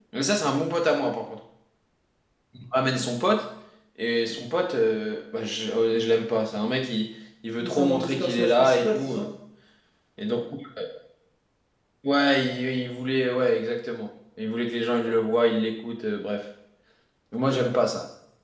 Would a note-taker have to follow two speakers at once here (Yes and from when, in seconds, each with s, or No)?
Yes, from 7.6 s